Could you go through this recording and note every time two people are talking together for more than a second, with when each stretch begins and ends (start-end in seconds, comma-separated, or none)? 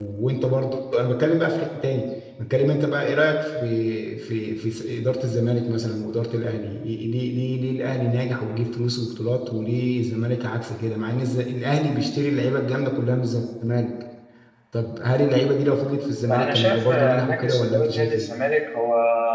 16.2-18.3